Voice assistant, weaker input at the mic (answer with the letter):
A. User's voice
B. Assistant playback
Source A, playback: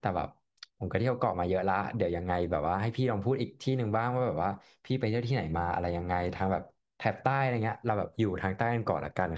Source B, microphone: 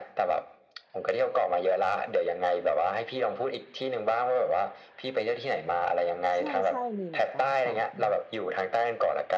A